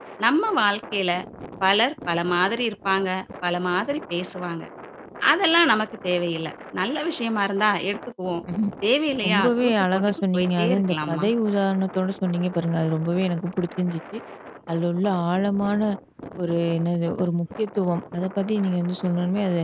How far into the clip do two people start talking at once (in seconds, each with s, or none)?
9.3 s